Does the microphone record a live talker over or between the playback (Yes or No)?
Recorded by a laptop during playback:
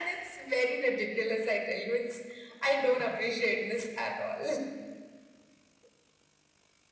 No